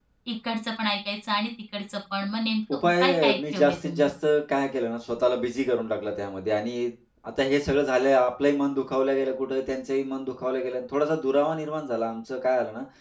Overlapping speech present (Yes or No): Yes